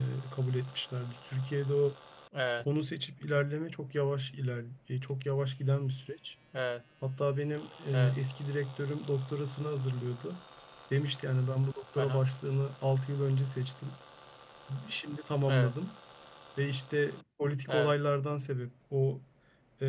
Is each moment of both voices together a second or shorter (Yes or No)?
Yes